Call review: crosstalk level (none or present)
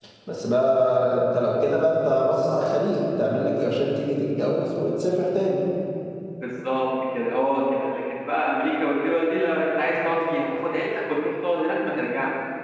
none